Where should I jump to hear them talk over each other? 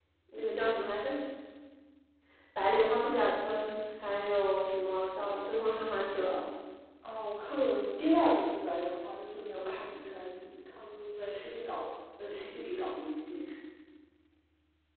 none

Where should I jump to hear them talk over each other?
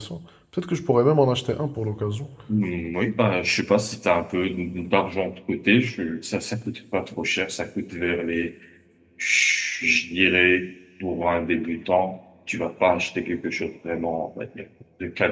none

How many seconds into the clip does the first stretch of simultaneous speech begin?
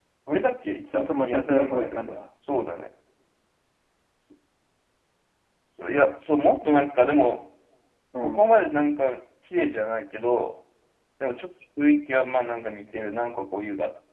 1 s

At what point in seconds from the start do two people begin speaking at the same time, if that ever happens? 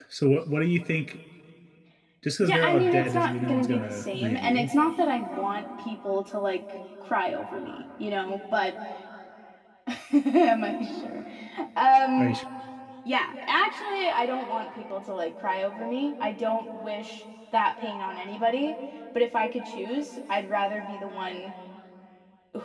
2 s

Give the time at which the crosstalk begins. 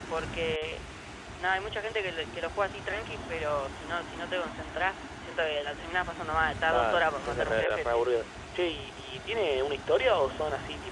7 s

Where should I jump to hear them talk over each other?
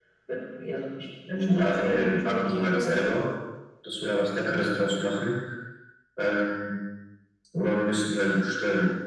1 s

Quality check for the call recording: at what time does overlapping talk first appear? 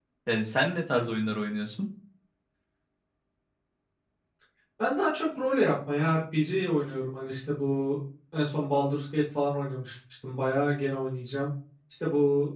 none

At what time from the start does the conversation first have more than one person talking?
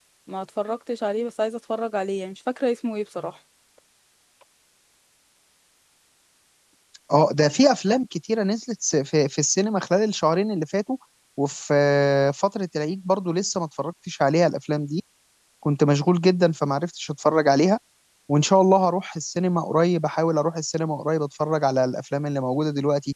none

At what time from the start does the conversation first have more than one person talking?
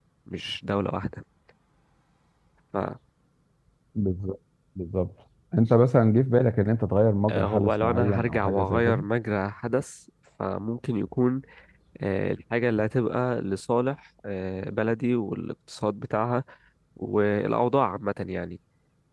7 s

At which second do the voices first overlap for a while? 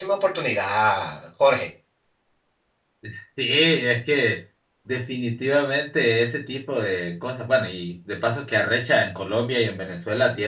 none

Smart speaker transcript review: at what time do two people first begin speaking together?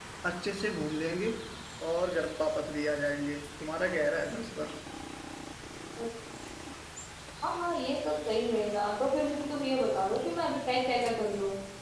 none

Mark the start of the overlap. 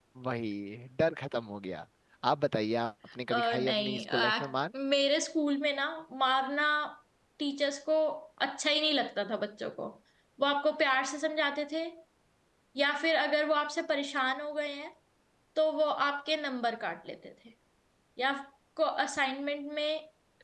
3 s

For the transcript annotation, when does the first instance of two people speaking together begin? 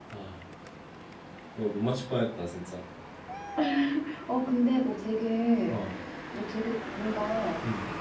none

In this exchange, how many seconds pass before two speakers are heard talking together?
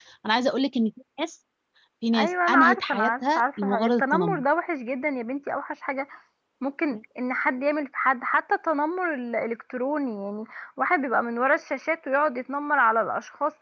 2 s

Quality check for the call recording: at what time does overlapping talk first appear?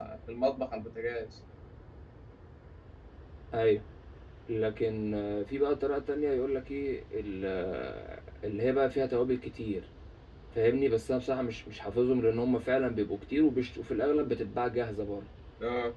none

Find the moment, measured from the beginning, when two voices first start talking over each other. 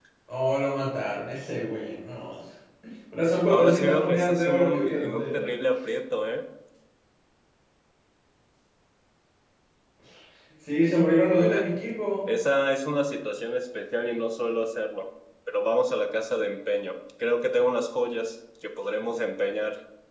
4 s

